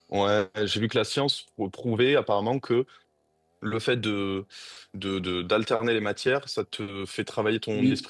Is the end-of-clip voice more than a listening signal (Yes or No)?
No